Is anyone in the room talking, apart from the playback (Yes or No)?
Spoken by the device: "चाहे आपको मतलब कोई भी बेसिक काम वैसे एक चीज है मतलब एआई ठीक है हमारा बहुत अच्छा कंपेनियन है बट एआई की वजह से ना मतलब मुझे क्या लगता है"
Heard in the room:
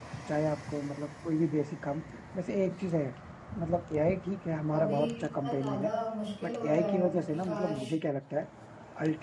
Yes